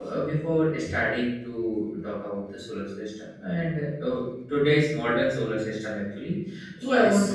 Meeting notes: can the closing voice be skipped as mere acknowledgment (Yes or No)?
No